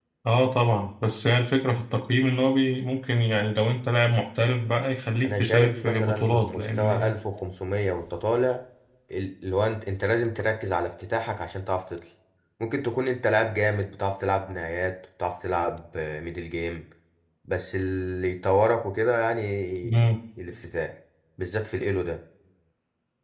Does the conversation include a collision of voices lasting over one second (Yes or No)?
Yes